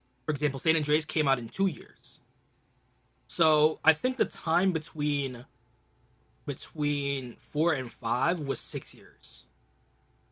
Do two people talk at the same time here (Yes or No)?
No